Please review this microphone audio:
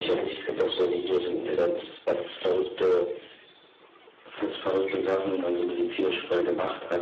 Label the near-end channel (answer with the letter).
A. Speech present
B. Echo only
B